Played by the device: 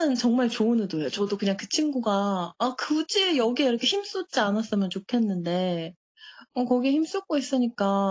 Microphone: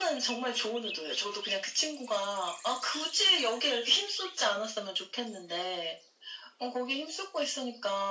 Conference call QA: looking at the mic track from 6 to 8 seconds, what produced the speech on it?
echo only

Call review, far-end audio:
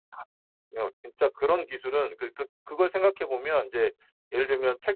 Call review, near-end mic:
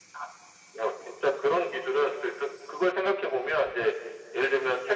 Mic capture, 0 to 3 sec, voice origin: echo only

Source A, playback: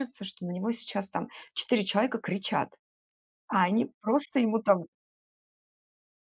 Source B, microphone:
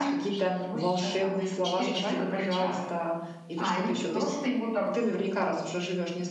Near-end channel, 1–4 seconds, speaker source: both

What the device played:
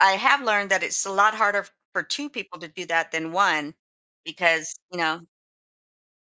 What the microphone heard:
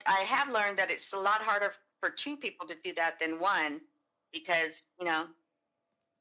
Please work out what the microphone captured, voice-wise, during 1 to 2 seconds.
echo only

